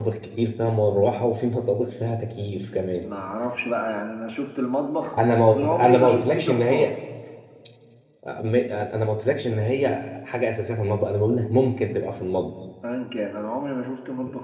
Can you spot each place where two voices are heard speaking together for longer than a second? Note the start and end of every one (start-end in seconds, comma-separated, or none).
5.5-6.9